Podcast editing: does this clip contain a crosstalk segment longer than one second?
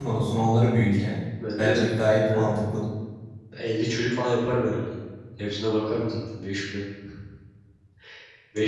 No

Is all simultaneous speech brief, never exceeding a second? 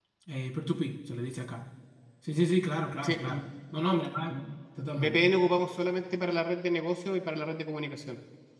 Yes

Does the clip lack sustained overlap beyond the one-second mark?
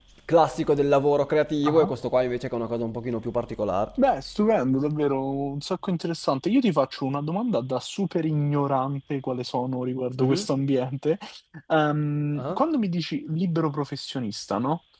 Yes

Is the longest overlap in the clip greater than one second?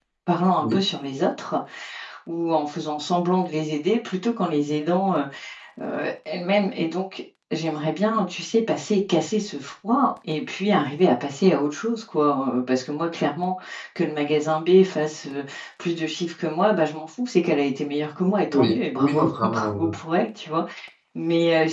Yes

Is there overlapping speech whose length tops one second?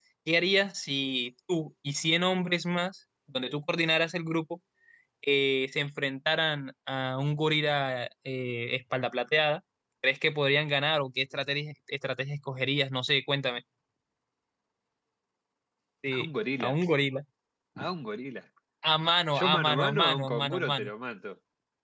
Yes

